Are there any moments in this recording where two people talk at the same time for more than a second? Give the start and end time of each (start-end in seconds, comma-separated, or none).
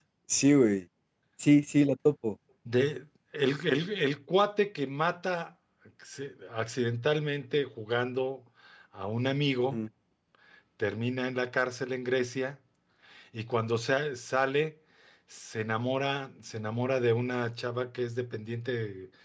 none